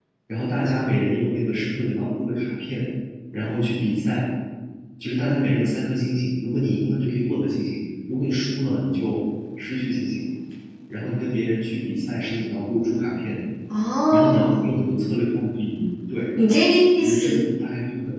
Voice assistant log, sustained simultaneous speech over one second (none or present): none